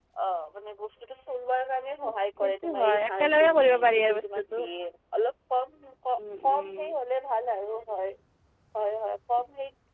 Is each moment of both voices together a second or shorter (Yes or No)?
No